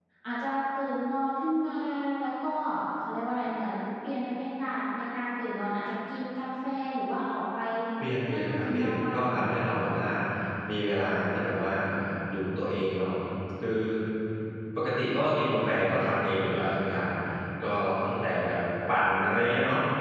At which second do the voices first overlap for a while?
8.3 s

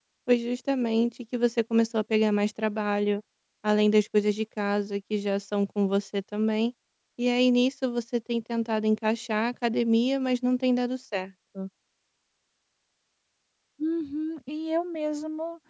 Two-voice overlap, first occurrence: none

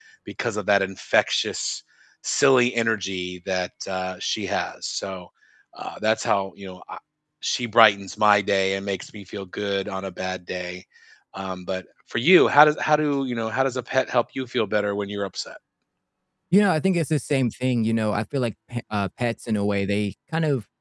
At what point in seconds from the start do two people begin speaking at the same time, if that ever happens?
none

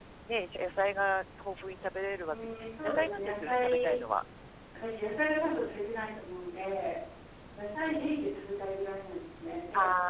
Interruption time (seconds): 2.2 s

